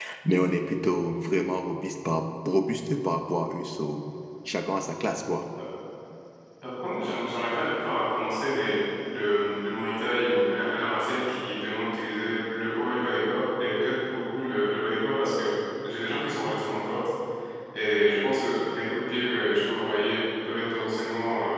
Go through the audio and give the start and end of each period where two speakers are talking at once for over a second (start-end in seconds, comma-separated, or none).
none